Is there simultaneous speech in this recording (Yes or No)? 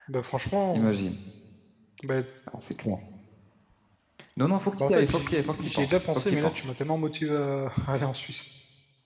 Yes